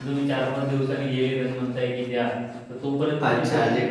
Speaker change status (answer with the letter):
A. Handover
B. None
A